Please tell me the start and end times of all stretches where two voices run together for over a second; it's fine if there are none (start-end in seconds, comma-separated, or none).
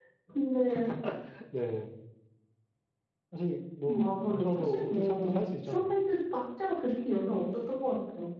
3.8-6.0